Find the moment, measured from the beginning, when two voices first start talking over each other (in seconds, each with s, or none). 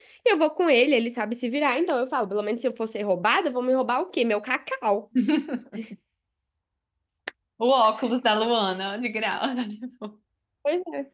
none